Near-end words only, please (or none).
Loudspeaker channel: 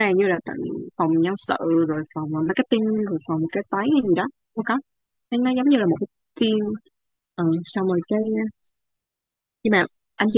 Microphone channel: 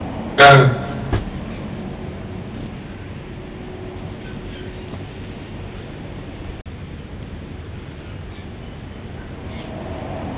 à